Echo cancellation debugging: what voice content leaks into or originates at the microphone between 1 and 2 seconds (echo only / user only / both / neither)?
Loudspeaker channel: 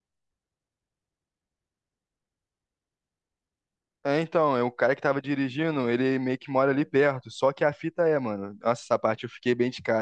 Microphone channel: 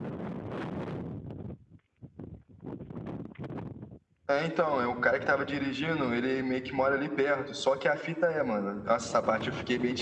neither